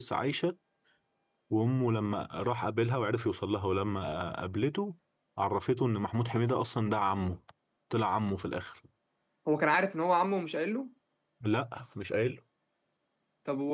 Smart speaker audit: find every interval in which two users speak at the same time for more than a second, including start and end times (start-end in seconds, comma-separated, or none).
none